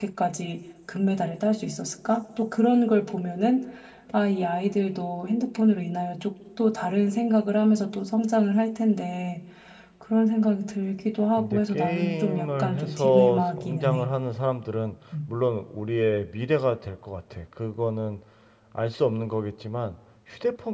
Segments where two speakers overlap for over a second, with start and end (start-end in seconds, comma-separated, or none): 11.4-14.1